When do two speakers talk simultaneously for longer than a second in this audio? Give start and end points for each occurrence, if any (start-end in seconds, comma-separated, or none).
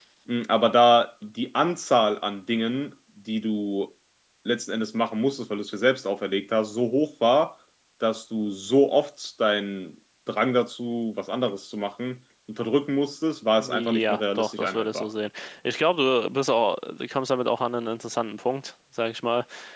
13.6-15.1